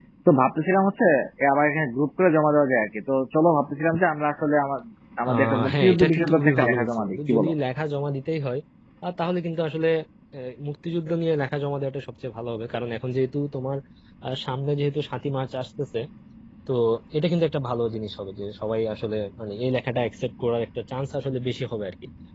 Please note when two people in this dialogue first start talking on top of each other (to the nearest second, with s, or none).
5 s